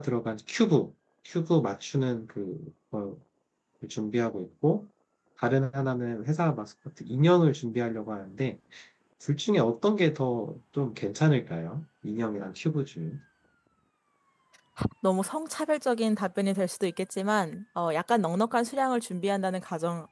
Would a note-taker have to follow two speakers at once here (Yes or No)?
No